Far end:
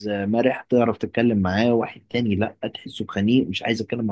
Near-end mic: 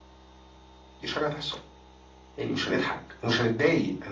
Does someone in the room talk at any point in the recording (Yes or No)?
Yes